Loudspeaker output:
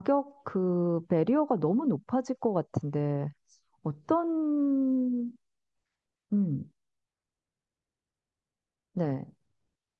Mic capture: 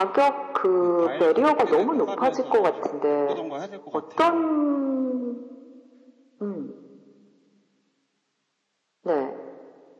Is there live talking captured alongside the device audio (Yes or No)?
Yes